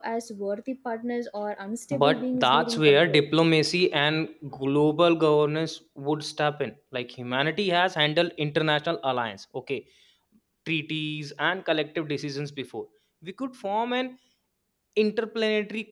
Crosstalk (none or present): present